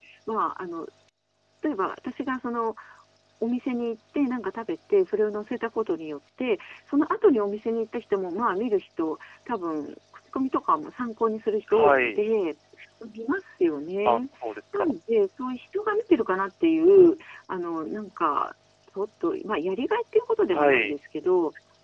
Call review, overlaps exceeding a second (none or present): none